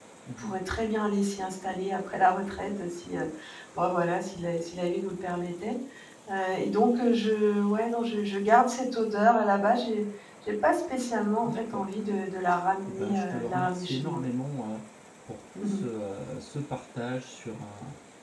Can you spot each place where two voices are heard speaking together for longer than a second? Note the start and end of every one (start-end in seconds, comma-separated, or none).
12.9-14.2